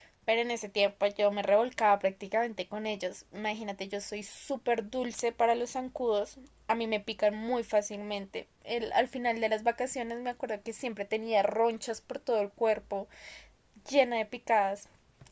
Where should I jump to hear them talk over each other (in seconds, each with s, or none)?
none